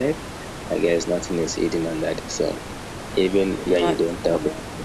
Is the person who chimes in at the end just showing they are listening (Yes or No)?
Yes